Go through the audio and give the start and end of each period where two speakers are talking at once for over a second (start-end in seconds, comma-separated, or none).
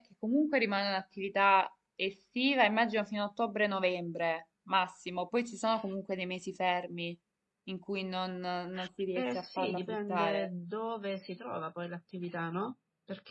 9.2-10.5